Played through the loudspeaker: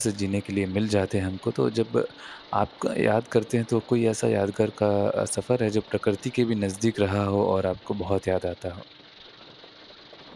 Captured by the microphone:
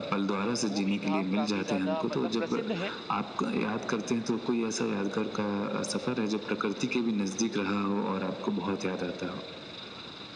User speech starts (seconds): 0.7 s

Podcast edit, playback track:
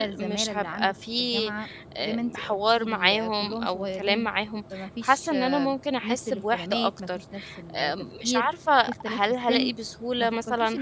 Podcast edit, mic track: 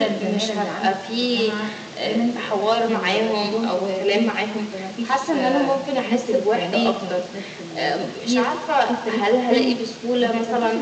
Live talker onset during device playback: none

